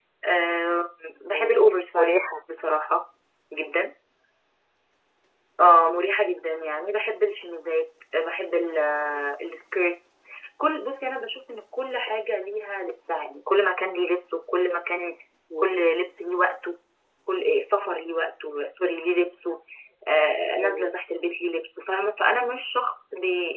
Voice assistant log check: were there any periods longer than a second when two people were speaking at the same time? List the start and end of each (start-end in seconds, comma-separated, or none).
none